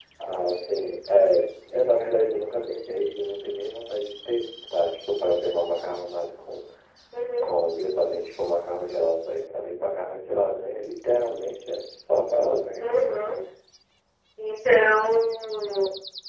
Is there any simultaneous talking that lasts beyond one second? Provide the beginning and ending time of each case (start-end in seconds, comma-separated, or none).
none